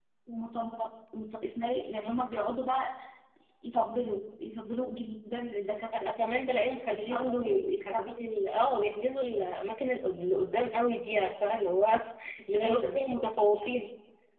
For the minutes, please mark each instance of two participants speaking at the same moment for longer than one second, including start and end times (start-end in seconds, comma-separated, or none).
6.9-8.1